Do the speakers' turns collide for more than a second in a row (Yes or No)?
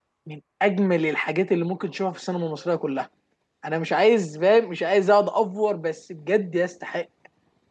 No